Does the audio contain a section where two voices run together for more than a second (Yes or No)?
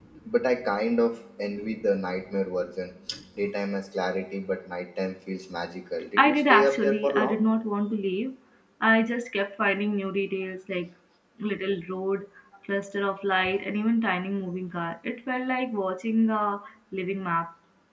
Yes